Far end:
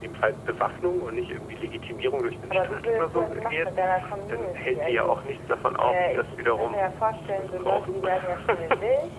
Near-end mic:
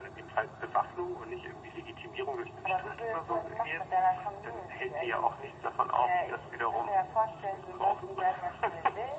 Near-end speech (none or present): none